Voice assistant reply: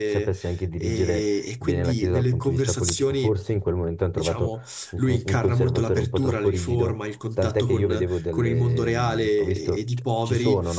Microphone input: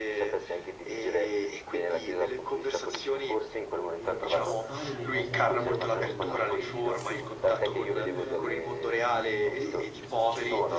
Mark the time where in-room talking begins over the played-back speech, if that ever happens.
4.0 s

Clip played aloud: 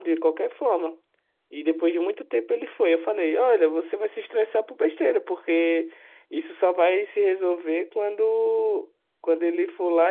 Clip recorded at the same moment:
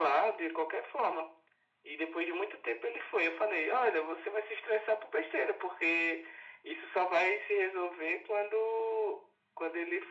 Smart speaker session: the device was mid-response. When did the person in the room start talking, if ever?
none

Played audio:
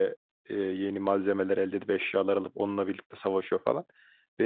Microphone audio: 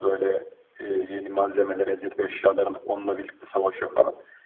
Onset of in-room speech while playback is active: none

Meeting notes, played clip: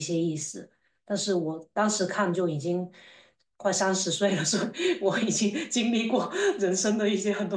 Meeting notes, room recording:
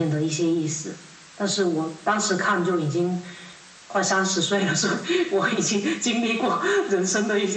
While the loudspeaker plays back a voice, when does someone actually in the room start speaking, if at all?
none

